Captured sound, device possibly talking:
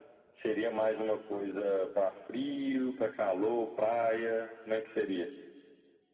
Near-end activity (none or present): none